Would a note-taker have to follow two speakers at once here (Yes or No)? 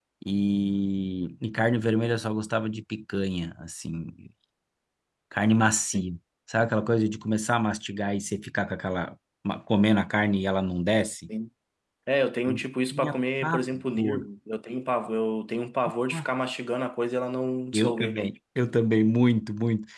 Yes